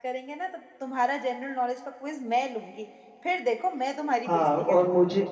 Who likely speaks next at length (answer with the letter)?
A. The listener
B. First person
A